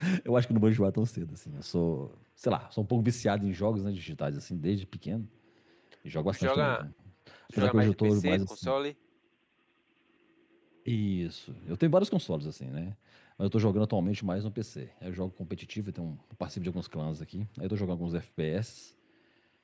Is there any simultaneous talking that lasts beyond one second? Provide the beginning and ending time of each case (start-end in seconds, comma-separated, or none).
7.5-8.7